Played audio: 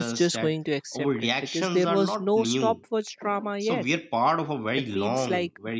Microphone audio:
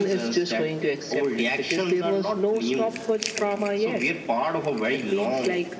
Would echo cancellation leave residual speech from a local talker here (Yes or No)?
No